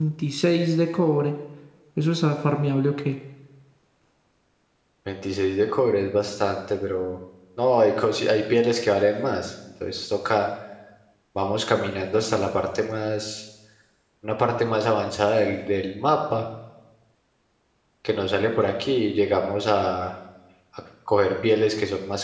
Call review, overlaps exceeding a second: none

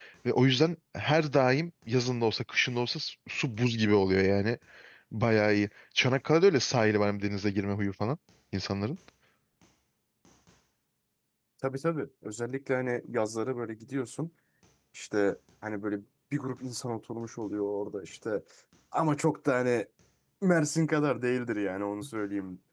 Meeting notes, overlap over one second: none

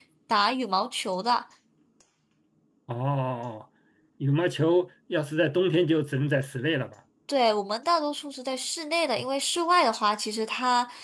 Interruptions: none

